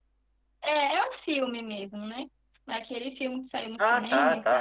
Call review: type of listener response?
taking over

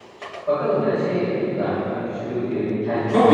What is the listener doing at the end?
taking over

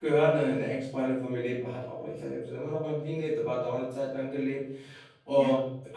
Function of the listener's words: listening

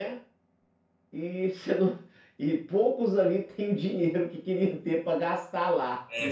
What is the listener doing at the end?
taking over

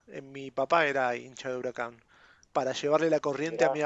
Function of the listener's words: listening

